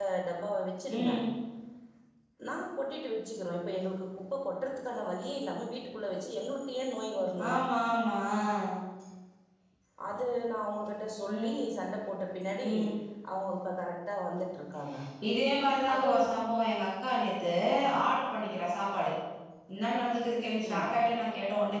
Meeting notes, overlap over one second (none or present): none